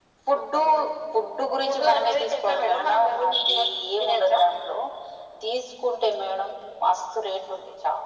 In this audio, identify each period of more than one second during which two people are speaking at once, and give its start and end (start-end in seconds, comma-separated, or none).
1.6-3.6